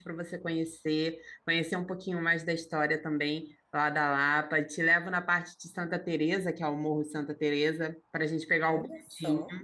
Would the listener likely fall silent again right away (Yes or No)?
No